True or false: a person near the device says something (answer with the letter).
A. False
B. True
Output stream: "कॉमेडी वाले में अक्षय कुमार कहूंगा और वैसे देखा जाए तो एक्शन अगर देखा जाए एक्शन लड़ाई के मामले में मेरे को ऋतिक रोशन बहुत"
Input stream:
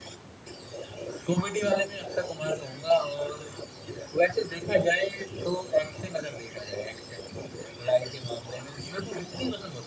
A